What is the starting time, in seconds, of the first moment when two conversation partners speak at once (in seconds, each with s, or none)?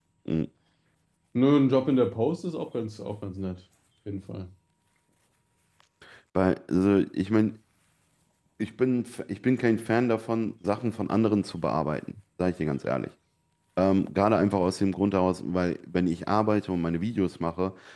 none